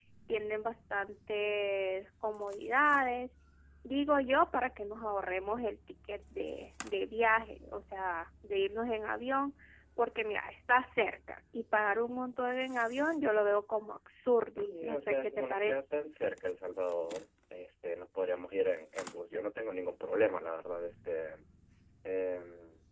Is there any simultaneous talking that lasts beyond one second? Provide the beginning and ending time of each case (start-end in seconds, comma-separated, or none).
14.6-15.8